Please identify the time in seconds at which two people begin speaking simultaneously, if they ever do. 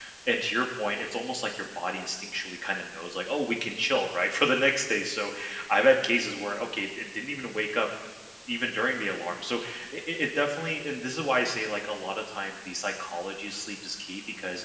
none

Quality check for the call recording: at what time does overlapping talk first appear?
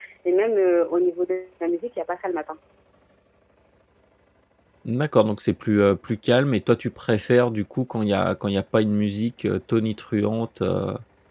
none

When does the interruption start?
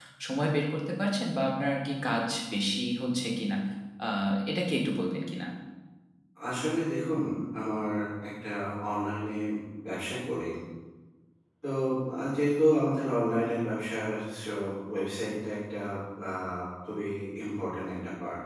none

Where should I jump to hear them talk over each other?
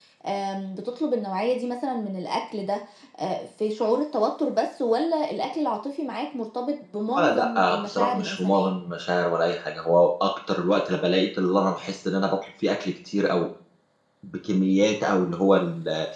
7.1 s

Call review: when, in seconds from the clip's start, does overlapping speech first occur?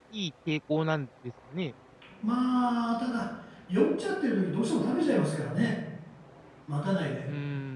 none

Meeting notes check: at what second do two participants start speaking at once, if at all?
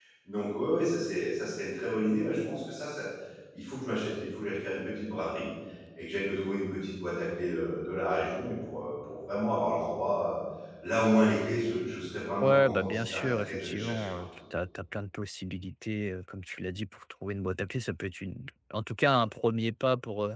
12.4 s

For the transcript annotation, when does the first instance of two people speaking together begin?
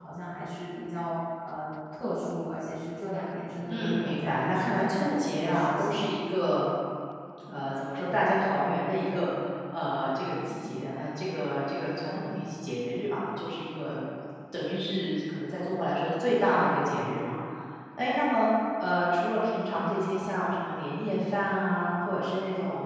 3.7 s

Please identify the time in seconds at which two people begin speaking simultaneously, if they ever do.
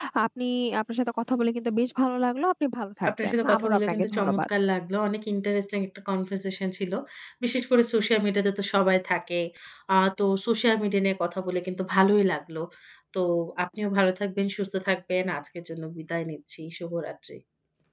3.0 s

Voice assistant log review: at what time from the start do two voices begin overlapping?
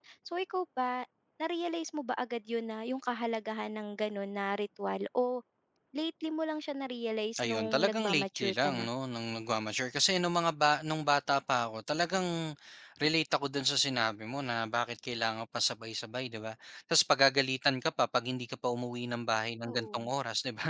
7.4 s

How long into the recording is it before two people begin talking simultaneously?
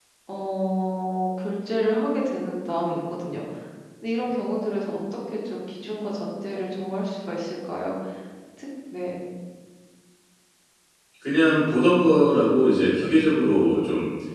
none

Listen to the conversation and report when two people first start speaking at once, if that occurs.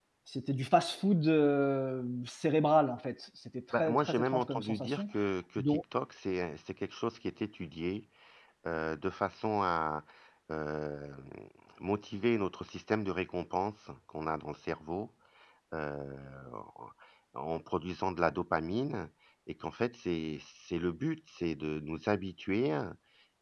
3.7 s

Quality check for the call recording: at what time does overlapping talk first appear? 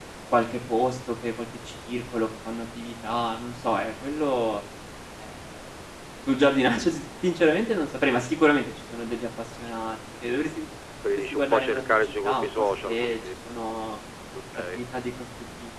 11.3 s

